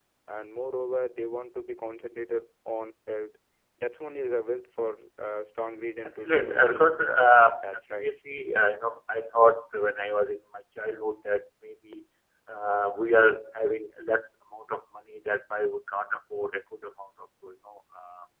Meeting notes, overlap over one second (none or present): present